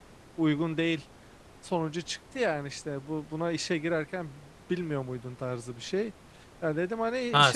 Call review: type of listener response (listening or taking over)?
taking over